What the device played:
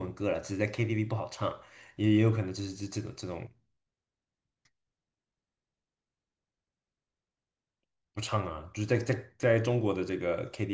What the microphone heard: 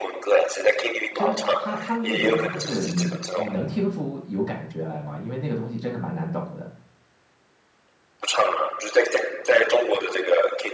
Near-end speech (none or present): present